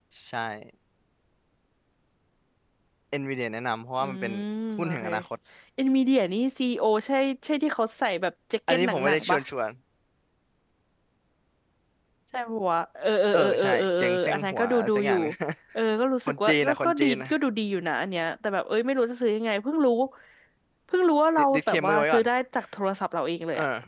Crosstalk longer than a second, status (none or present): present